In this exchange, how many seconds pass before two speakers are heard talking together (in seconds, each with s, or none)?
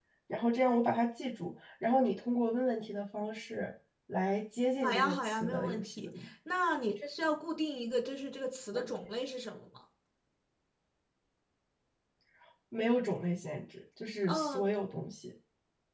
4.8 s